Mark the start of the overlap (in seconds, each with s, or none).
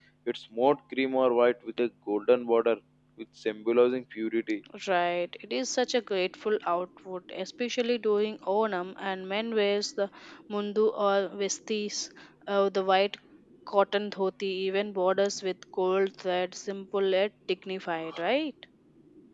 none